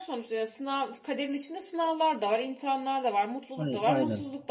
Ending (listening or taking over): listening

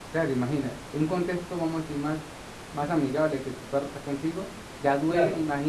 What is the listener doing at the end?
listening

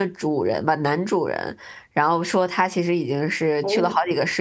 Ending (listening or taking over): listening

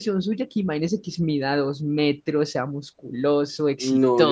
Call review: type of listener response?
taking over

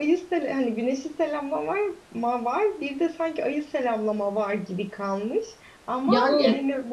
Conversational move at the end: listening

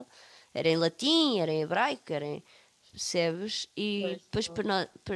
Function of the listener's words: listening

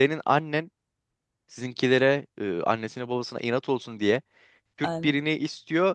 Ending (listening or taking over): listening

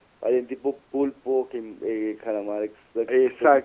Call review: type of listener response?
taking over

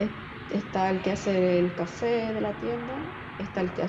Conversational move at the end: listening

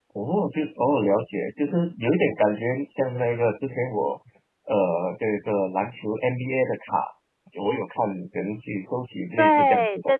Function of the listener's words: taking over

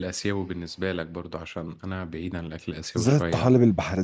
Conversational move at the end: taking over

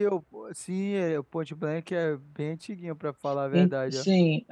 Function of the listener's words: taking over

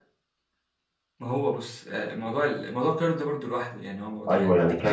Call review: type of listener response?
taking over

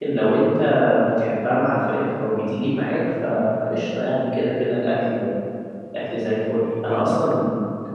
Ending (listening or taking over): listening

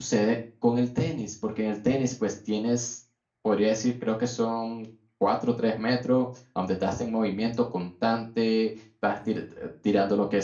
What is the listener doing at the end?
listening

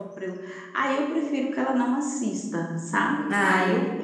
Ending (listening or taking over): listening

